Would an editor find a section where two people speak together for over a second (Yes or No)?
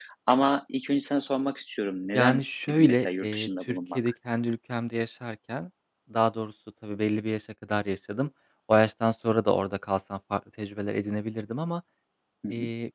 Yes